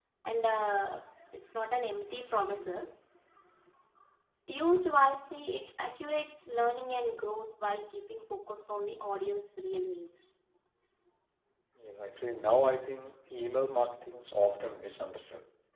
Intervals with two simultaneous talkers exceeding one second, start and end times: none

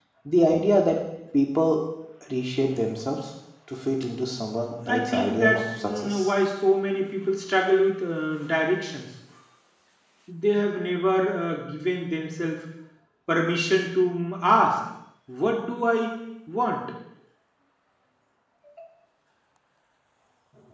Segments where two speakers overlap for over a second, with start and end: 4.9-6.3

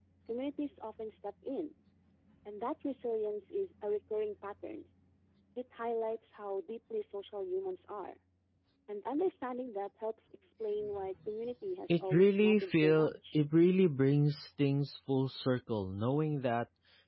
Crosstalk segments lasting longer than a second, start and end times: 11.9-13.3

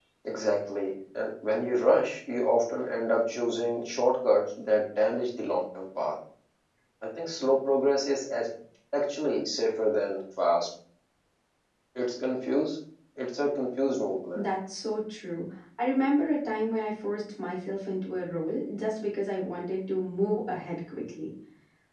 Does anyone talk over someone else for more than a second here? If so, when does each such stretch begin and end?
none

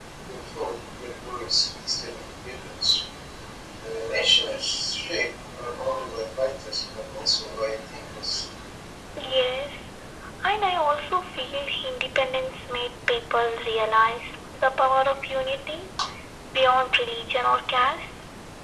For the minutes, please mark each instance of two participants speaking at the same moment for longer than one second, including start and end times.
none

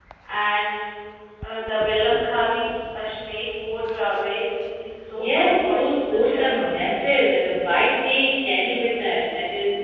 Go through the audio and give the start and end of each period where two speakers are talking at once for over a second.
5.2-6.7

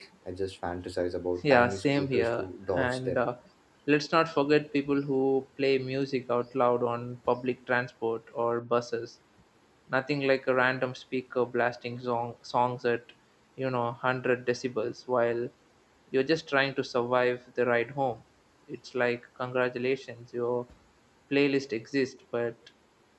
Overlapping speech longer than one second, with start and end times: 1.4-3.2

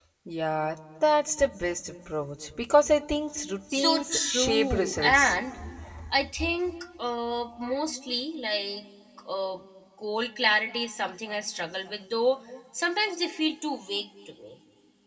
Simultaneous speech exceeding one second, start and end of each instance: 3.7-5.4

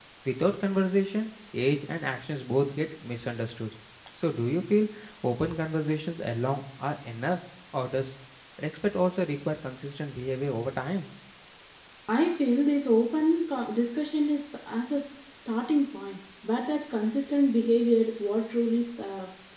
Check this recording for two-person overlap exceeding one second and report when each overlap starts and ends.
none

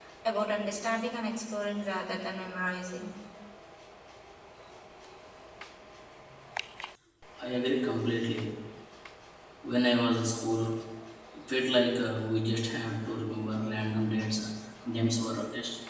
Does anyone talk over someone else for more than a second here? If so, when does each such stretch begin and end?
none

